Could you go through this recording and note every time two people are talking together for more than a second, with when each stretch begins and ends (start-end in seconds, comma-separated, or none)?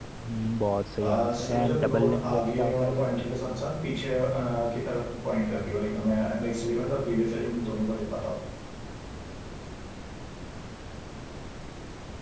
1.0-3.1